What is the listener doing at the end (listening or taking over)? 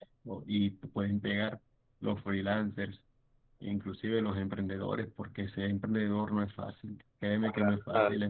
listening